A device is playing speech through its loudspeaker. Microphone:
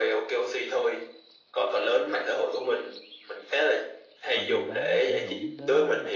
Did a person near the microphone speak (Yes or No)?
Yes